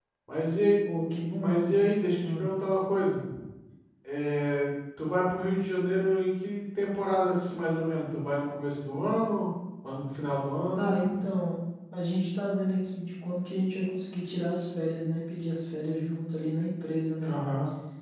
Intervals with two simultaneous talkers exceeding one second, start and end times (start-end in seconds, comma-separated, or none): none